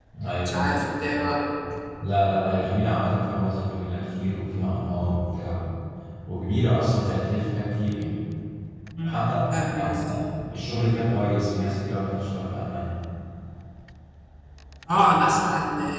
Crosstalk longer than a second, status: none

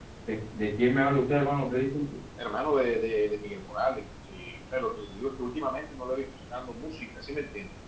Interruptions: none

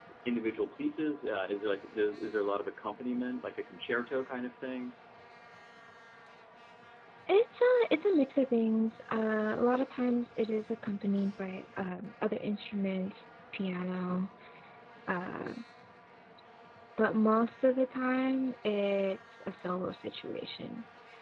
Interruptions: none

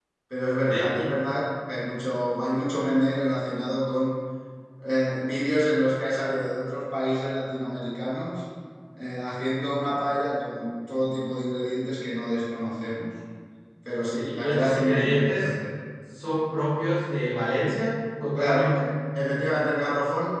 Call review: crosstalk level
present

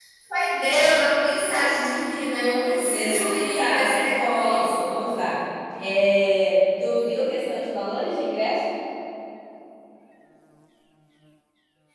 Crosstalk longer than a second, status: present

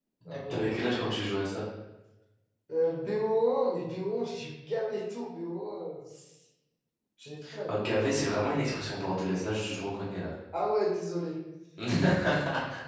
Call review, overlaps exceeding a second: none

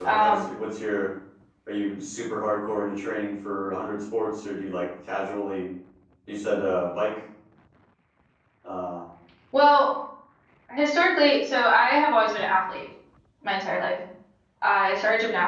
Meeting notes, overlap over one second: none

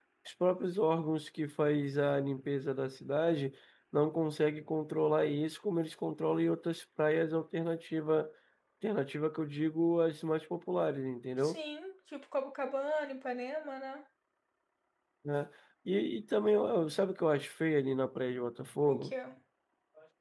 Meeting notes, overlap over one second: none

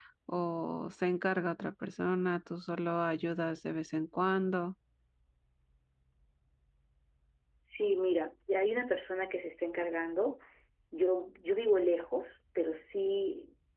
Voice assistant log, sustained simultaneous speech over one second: none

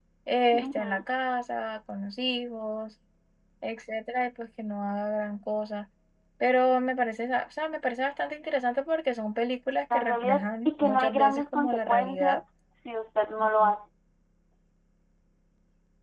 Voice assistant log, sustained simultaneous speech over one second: present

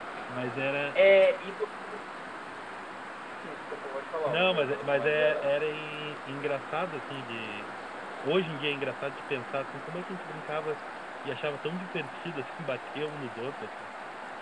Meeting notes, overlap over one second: present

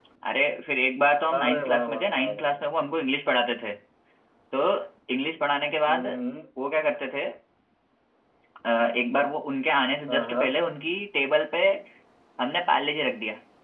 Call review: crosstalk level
present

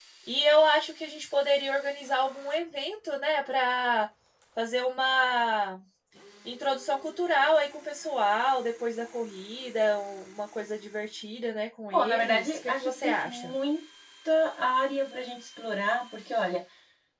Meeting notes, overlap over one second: present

